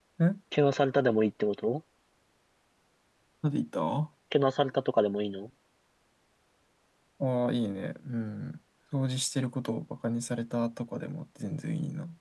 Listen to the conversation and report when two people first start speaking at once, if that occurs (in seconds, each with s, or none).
none